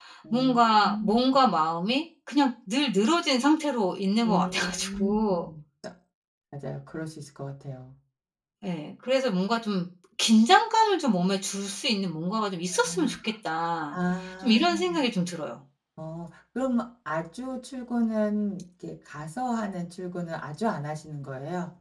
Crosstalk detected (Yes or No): Yes